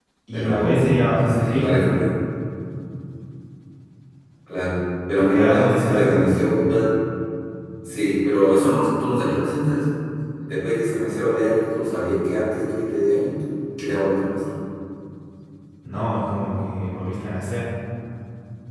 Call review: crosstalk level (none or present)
present